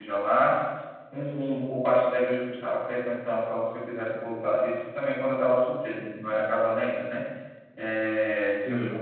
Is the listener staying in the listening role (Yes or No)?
Yes